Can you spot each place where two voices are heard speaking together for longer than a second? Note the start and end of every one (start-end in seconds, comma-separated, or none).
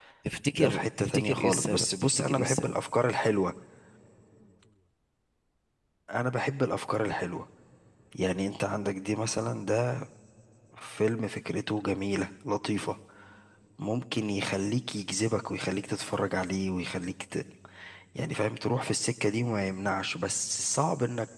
0.5-2.7